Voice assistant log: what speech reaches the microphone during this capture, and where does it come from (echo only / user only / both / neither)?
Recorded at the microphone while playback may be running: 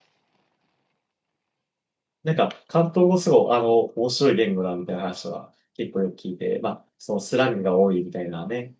user only